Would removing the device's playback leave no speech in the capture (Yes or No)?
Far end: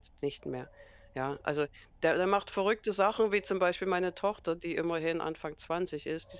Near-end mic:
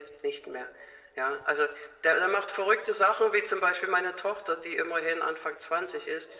Yes